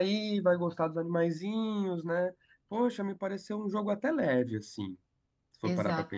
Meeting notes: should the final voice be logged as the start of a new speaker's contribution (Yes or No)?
Yes